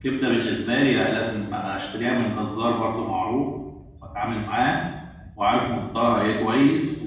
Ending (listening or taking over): listening